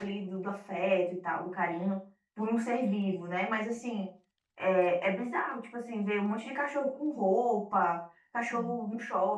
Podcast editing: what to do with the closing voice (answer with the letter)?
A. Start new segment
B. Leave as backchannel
B